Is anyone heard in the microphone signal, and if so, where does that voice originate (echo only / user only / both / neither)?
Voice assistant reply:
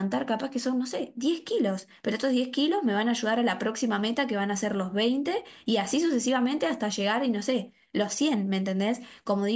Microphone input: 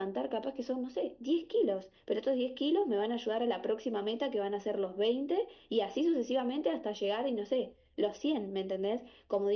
echo only